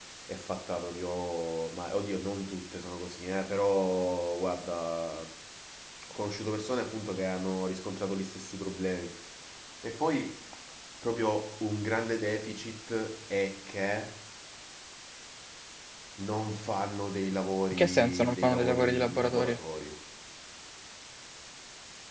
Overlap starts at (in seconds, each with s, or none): 17.7 s